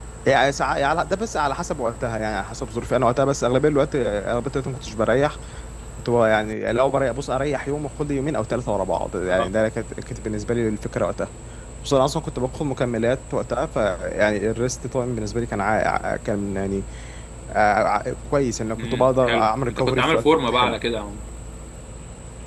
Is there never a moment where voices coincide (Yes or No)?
No